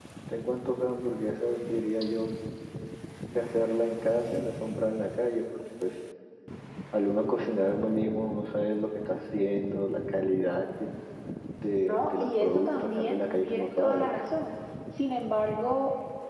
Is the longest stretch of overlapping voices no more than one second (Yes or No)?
No